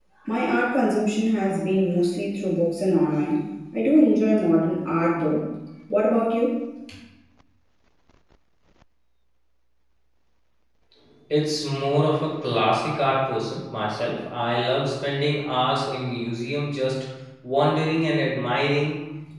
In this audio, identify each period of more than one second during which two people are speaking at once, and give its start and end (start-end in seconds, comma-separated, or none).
none